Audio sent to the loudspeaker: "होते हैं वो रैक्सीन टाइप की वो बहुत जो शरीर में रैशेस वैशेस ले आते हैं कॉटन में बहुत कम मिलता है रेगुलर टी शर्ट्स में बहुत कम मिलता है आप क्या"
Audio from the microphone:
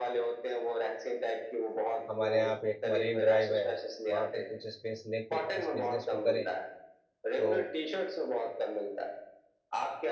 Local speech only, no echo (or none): हमारे यहाँ पे एक मरीन ड्राइव है वहाँ पे कुछ स्पेस लेके इस बिजनेस को करें तो